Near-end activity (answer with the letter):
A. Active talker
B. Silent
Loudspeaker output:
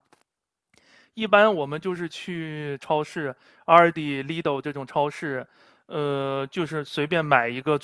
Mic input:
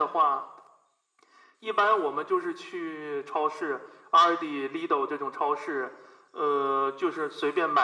B